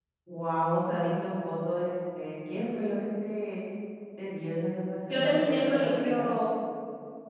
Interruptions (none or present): present